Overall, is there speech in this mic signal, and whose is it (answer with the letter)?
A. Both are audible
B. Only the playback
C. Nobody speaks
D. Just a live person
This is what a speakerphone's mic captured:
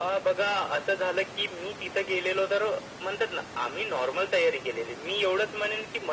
B